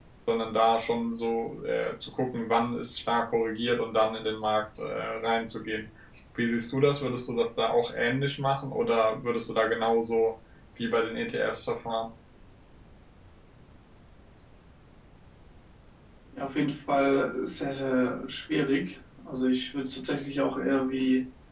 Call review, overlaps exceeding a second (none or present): none